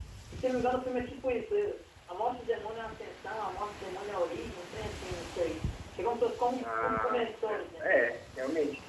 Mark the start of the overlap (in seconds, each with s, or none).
6.6 s